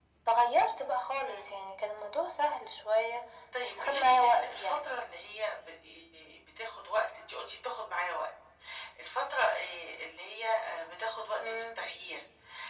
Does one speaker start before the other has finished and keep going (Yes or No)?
Yes